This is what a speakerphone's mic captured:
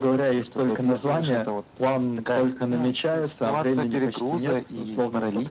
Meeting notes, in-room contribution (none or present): none